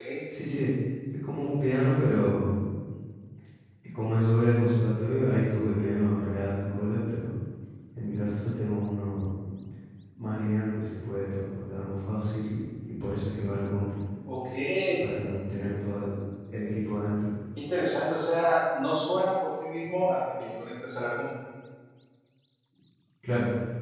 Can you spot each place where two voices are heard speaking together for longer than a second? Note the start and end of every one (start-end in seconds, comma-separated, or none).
none